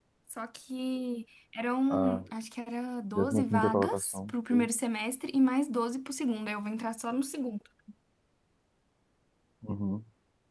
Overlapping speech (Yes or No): Yes